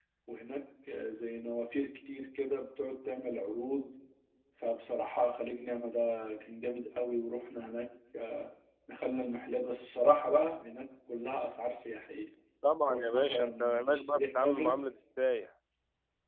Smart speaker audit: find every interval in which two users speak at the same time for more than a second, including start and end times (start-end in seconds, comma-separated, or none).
12.9-14.8